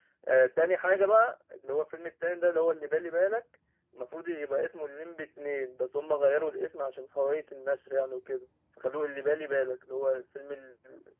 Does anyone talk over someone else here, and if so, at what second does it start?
none

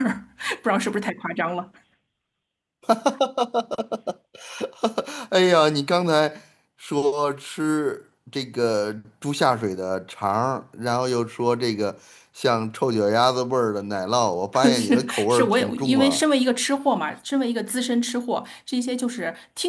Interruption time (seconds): 15 s

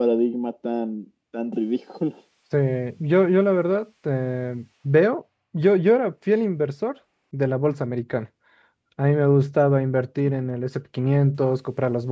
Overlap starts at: none

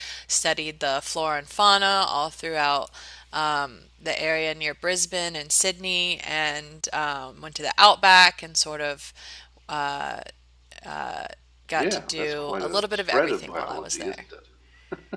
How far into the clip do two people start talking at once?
12 s

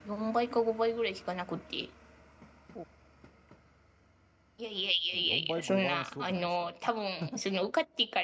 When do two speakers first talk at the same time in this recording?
5 s

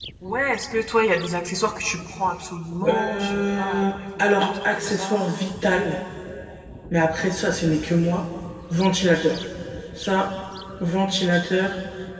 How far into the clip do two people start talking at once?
3 s

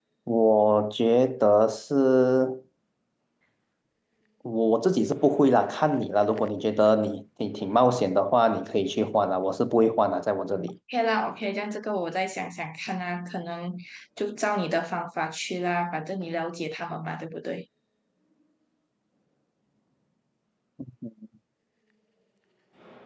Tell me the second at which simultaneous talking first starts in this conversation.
none

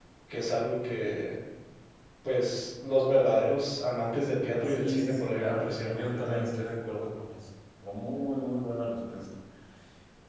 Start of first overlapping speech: 5 s

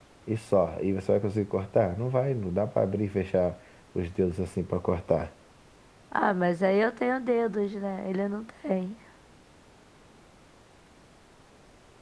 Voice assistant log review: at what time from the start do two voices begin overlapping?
none

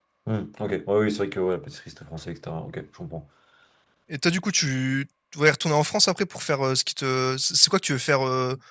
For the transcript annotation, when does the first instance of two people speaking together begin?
none

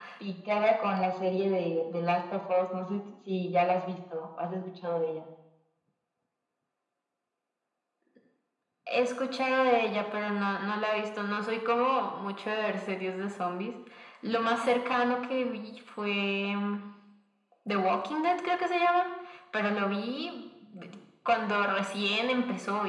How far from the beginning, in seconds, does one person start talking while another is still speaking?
none

